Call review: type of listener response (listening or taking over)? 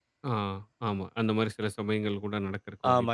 taking over